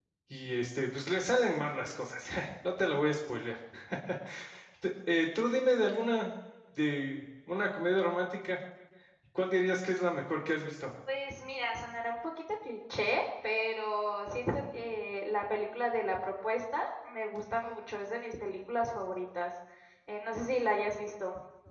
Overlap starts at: none

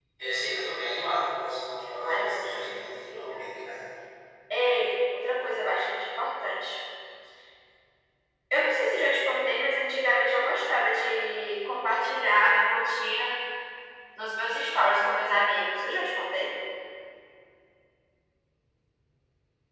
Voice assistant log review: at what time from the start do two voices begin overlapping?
2.0 s

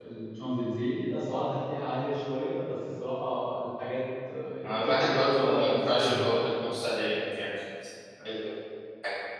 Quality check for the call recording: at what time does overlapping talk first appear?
4.6 s

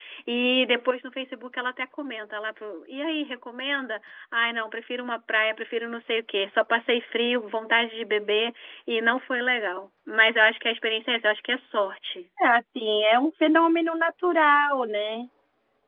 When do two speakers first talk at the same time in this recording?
none

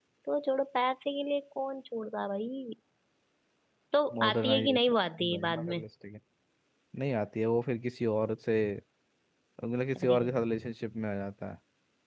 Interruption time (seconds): 4.2 s

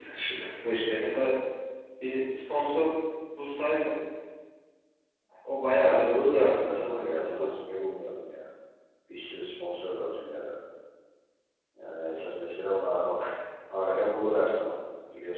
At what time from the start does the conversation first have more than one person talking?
5.8 s

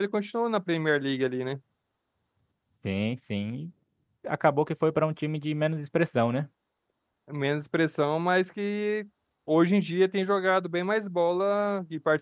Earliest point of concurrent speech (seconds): none

